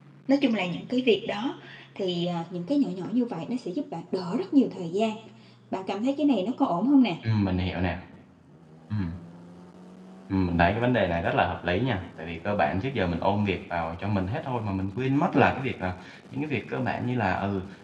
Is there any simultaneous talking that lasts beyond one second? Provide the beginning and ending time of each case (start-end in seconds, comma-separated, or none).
none